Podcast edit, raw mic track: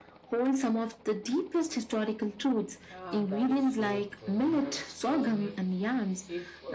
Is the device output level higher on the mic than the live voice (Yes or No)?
Yes